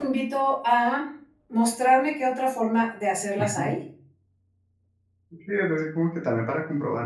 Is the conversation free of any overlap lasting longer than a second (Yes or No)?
Yes